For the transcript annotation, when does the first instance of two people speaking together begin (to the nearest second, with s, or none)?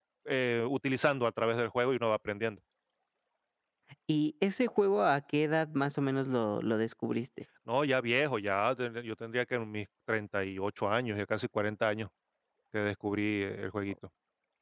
none